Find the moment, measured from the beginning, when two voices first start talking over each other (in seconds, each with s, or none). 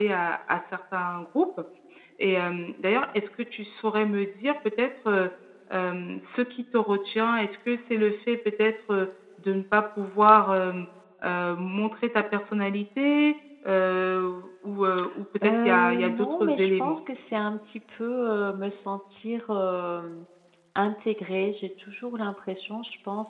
15.4 s